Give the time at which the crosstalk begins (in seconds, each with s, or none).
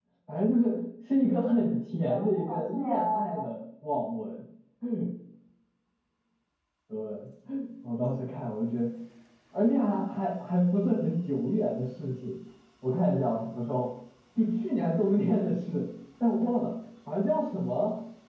2.0 s